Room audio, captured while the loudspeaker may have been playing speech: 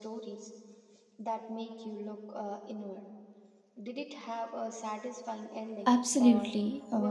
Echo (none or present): present